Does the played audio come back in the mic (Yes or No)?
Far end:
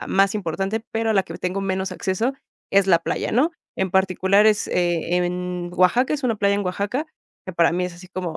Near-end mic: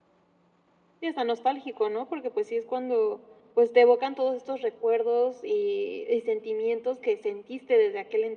No